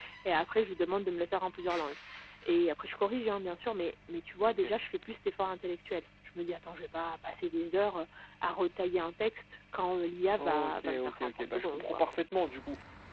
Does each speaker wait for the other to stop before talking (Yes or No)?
No